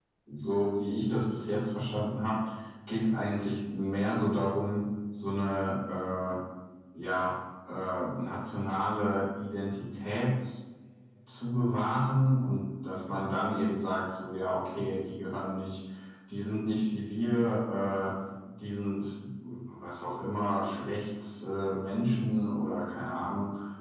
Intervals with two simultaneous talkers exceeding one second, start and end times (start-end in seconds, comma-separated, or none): none